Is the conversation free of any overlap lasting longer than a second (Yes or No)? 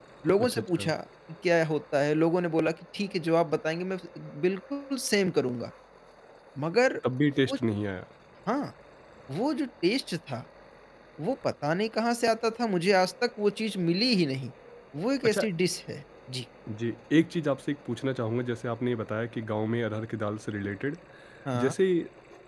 Yes